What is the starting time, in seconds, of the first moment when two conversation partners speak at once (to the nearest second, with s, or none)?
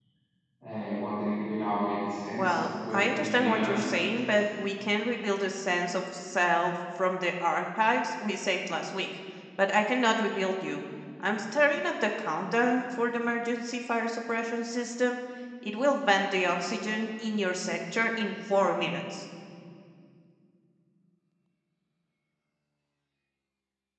2 s